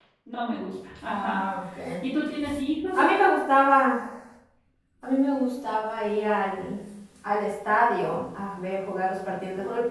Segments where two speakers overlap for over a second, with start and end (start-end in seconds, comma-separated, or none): none